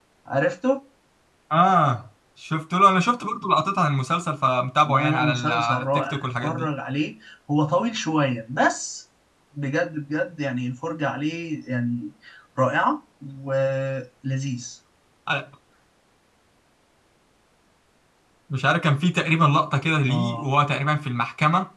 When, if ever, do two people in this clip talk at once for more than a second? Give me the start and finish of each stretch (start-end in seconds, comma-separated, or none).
4.8-6.7